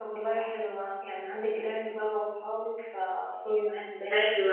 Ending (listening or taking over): taking over